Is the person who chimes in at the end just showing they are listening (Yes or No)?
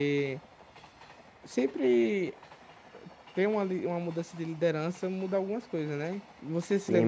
No